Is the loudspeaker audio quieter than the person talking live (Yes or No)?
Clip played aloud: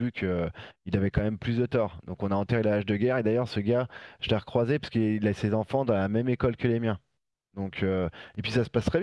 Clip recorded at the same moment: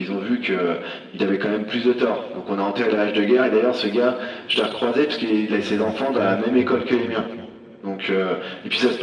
No